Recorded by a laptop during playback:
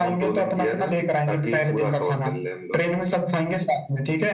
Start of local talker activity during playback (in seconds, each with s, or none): none